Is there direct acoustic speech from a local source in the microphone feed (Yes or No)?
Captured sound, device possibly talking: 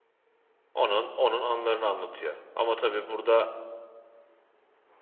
Yes